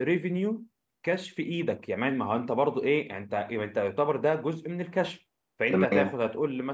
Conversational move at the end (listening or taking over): listening